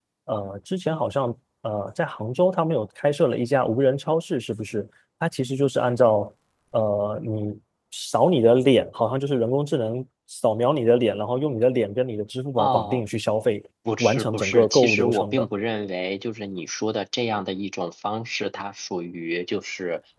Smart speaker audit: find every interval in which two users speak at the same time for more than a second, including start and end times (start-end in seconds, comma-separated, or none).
14.0-15.4